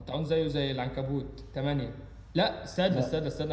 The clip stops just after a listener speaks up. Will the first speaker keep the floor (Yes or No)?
Yes